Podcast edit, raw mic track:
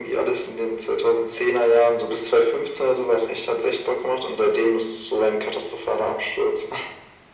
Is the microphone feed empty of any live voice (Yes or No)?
Yes